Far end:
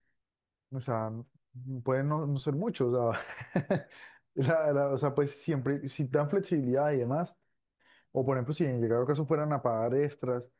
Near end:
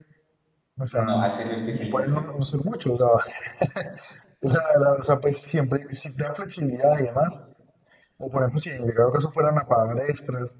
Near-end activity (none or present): present